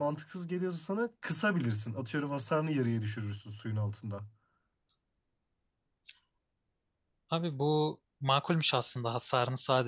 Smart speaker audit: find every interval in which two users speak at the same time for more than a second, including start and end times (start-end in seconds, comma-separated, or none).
none